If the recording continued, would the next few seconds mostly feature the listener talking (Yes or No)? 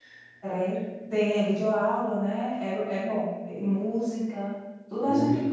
No